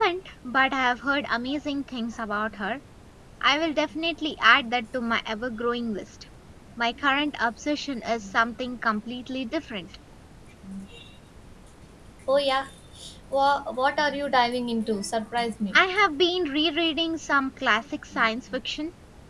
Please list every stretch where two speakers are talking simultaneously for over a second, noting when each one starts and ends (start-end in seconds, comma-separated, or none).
none